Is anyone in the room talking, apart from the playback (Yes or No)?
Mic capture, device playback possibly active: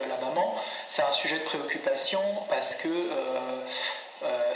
No